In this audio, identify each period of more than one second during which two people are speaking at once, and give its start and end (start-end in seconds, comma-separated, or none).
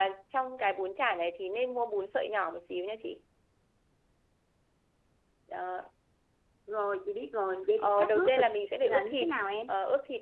7.8-9.3